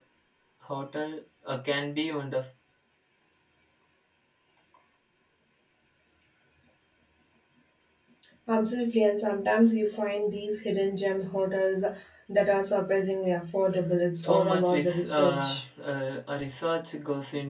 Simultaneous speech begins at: 14 s

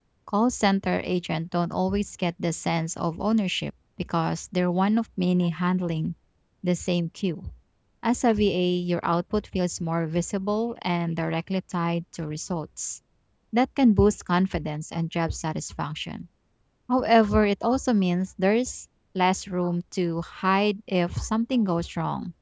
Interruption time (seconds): none

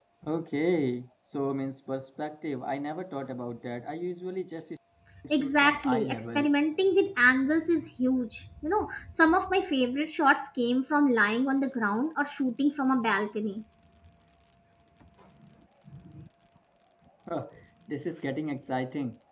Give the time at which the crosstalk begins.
5 s

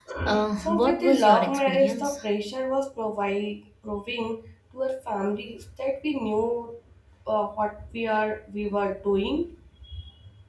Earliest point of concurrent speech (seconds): 1 s

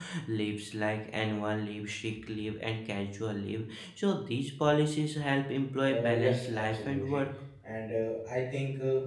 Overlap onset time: 6 s

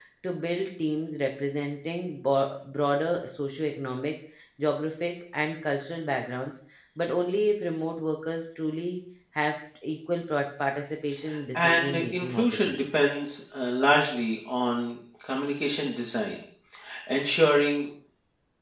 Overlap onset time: 12 s

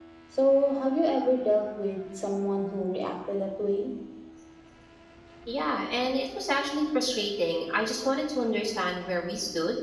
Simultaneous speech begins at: none

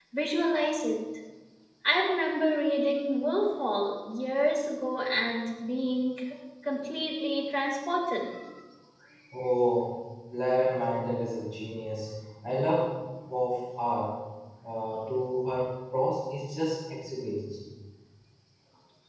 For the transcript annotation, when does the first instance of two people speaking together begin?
none

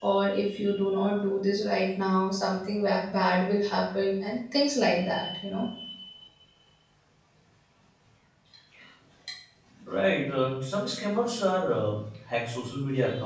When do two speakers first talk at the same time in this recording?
none

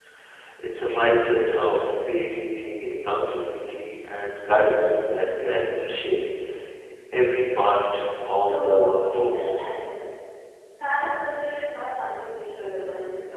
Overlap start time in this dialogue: 8 s

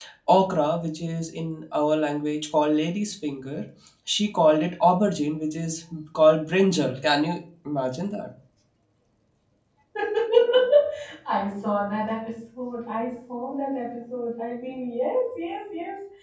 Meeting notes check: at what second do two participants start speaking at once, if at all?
none

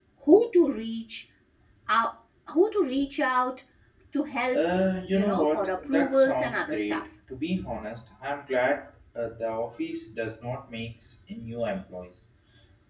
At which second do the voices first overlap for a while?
5 s

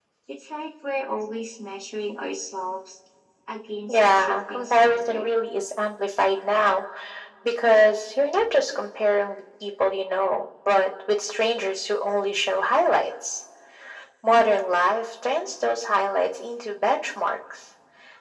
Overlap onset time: 4 s

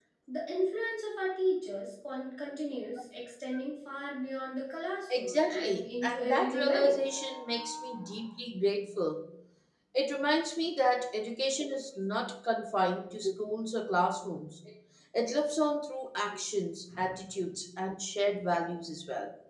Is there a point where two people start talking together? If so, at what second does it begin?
5 s

